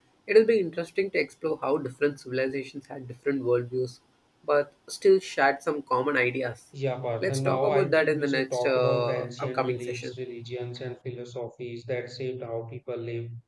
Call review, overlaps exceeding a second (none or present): present